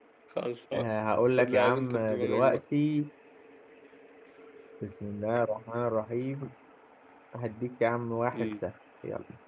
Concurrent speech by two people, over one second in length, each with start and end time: 1.4-2.6

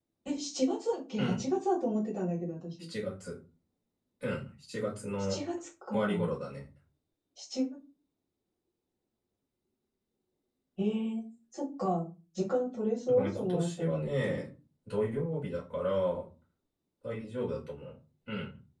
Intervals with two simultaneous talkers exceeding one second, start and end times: 13.1-14.4

